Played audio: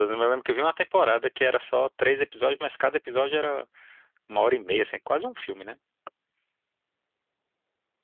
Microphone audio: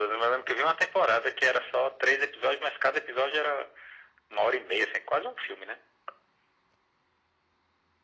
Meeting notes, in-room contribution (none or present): none